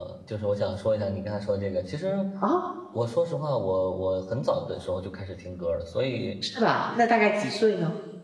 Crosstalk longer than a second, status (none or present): none